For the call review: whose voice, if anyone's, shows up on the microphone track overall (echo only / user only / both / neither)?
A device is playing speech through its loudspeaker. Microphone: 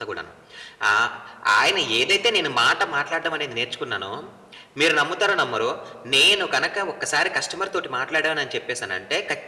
user only